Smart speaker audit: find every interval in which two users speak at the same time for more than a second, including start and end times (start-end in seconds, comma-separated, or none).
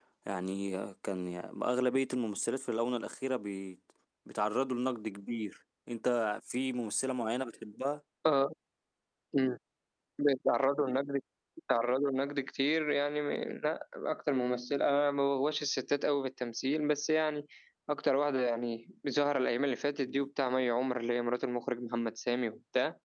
none